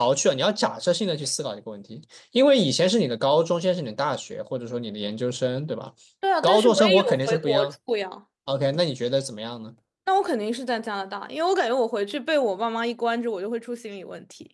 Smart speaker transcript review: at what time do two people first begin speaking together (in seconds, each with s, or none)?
6.4 s